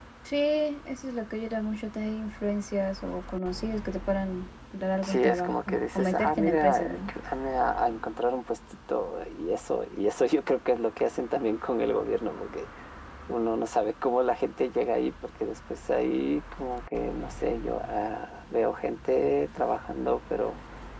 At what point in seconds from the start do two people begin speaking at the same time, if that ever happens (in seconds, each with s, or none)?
5.0 s